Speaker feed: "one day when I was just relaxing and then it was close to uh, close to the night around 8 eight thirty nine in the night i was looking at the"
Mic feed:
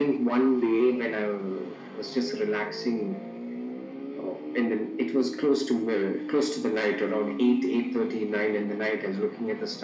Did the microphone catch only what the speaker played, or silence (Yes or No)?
Yes